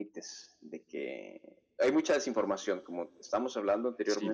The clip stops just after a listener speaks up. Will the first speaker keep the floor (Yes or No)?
Yes